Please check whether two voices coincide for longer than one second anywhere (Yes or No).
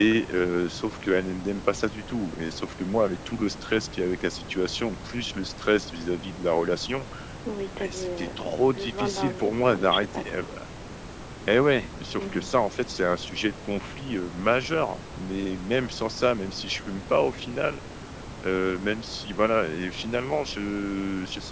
Yes